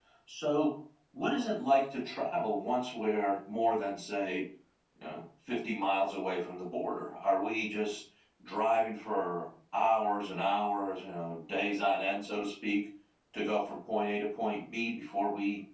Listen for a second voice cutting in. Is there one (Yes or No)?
No